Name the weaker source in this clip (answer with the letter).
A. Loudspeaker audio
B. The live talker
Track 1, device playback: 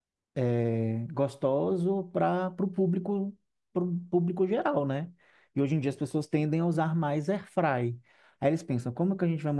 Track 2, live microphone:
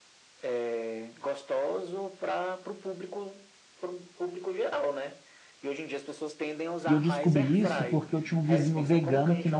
A